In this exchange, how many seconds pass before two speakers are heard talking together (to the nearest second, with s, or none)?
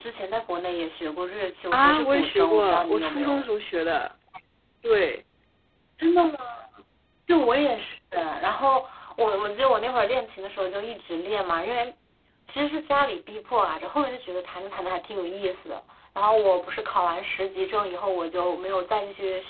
2 s